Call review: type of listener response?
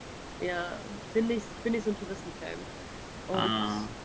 listening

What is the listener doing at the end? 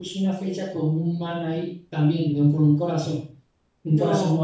listening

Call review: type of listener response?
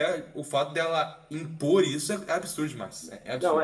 taking over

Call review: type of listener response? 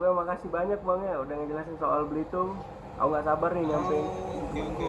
taking over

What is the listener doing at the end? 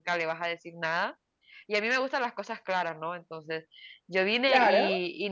listening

